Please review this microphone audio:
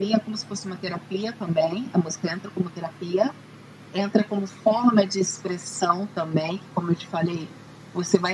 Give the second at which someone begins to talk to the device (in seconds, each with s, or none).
none